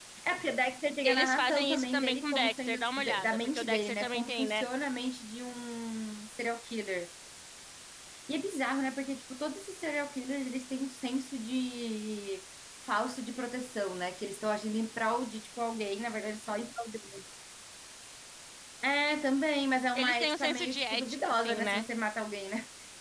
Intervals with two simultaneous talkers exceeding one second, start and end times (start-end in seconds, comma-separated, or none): 1.0-4.6, 19.9-21.9